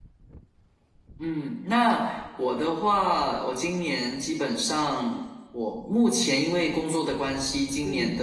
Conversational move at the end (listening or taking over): listening